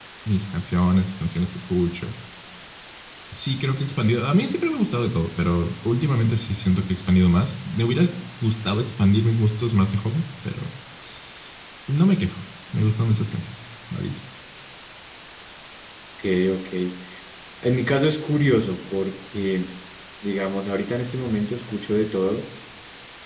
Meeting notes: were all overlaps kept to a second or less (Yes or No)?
Yes